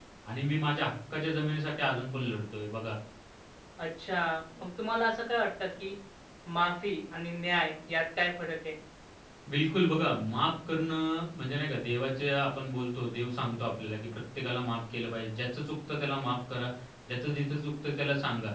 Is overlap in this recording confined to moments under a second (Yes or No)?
Yes